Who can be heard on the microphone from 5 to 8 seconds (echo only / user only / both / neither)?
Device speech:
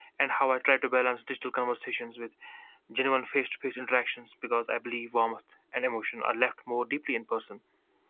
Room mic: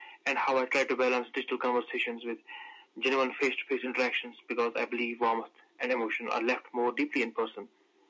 echo only